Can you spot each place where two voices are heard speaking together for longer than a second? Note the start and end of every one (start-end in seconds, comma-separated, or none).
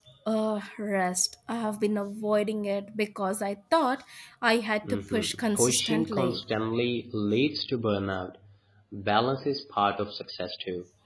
4.8-6.4